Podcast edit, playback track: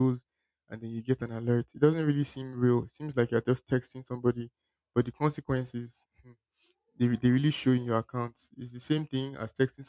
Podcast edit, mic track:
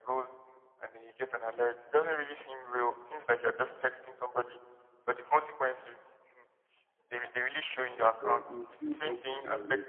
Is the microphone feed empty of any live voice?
No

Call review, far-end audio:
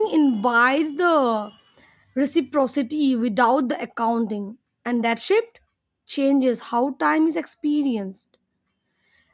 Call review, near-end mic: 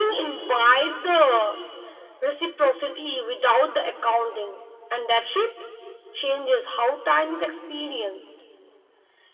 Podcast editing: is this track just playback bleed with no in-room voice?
Yes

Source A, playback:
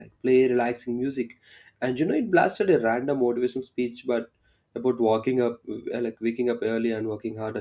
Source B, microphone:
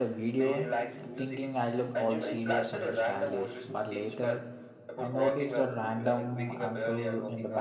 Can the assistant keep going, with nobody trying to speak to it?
No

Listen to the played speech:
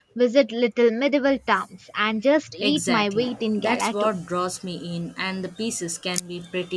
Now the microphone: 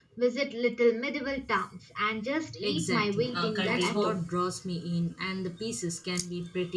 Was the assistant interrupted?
Yes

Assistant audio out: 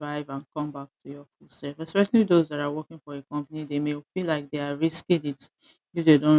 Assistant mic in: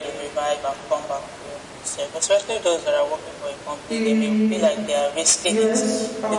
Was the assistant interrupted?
Yes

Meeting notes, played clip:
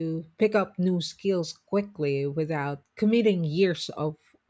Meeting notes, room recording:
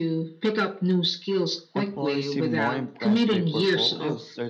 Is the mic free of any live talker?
No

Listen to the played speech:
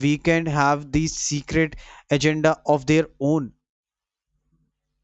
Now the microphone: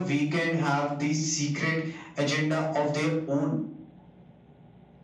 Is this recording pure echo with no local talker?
Yes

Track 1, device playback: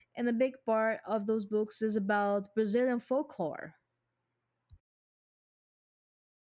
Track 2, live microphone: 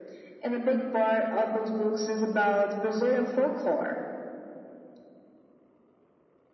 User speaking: No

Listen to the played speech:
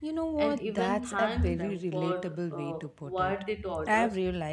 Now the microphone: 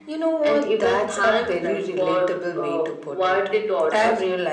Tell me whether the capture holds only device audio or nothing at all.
Yes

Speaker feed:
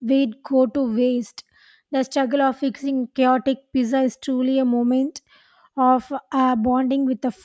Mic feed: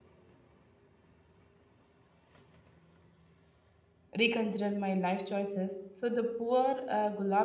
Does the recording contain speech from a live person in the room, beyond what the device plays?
Yes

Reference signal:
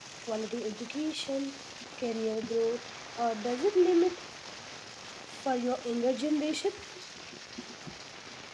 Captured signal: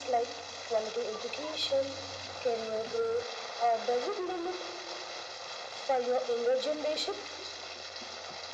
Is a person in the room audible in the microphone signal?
No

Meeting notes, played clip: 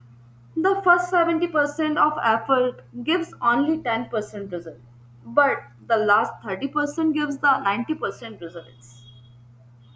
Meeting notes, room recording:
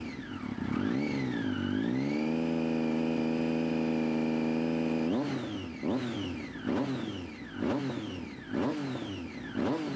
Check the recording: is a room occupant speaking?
No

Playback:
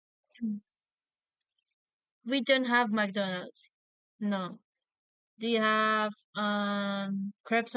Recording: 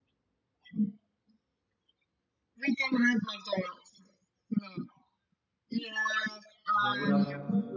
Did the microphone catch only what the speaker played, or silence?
No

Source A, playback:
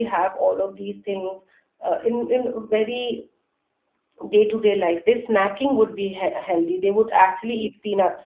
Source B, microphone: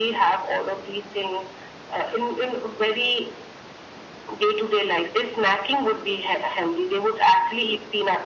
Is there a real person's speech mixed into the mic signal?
No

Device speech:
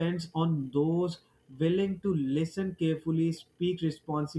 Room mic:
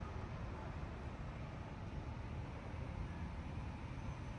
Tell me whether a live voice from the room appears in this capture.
No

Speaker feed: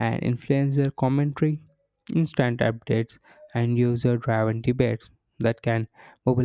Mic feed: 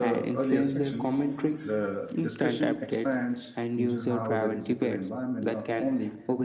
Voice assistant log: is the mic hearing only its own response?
No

